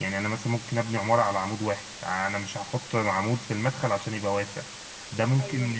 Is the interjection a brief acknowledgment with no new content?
No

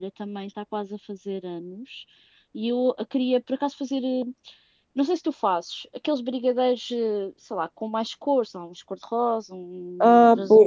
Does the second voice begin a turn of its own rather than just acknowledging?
Yes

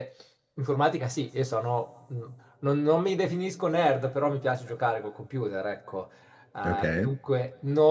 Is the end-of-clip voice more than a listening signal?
No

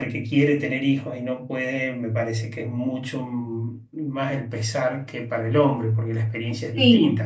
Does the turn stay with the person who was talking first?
No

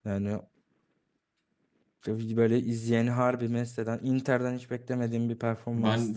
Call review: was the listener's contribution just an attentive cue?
No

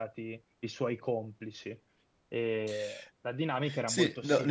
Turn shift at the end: Yes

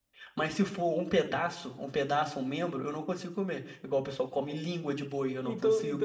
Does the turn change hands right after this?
Yes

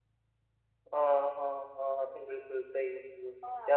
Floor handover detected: No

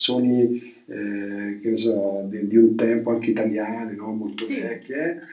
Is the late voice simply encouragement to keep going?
Yes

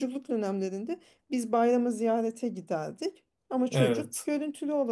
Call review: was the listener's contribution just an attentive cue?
Yes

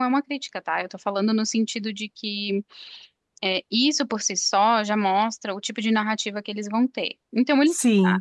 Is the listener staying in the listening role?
Yes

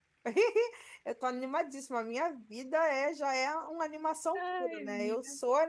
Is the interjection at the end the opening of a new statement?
No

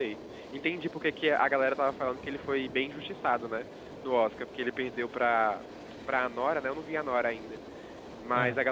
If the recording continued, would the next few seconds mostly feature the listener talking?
No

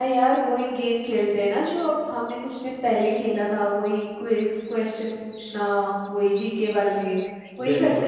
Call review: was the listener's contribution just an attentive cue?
No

